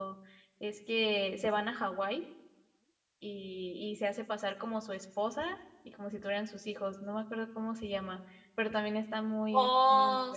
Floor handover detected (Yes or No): Yes